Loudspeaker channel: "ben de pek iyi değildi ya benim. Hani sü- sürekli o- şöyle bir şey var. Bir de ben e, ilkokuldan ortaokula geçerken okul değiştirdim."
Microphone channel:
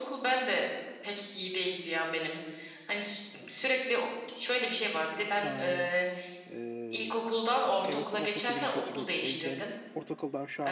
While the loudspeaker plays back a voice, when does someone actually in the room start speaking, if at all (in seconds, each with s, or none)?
5.4 s